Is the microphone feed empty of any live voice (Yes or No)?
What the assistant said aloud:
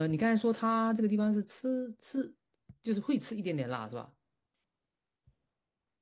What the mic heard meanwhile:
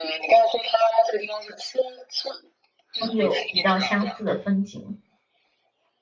No